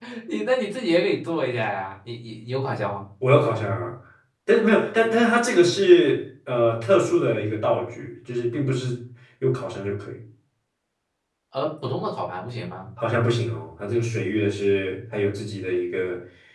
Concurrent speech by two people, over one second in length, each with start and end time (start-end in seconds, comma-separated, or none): none